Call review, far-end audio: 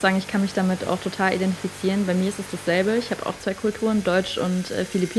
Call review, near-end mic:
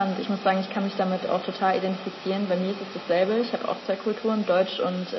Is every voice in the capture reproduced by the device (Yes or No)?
Yes